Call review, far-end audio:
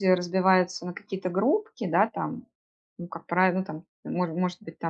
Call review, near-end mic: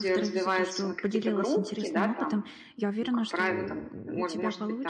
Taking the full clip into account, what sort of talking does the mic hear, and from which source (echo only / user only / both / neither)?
both